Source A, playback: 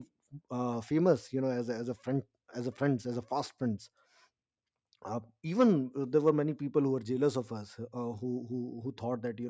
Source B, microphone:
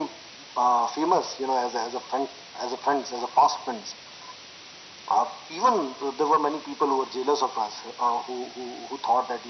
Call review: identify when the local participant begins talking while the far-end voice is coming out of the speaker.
none

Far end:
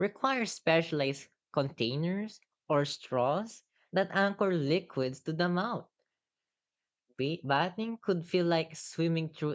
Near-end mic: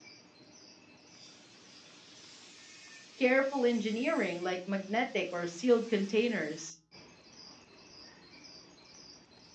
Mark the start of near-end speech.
3.2 s

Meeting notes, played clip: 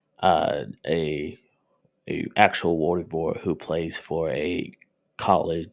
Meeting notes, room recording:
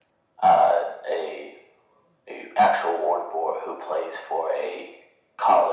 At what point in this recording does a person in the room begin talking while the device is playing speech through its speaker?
none

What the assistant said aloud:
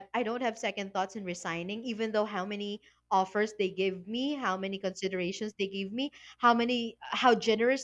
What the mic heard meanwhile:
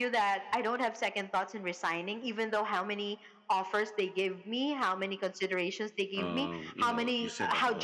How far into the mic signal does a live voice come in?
6.1 s

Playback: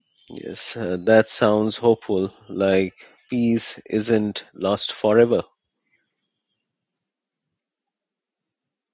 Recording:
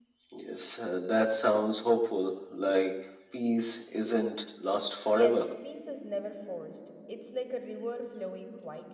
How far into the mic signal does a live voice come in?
5.1 s

